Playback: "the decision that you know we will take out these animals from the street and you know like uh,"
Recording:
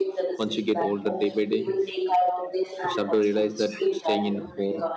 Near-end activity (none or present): present